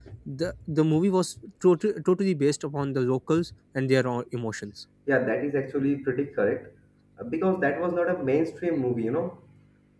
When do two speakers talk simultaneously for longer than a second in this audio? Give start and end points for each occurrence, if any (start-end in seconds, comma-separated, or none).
none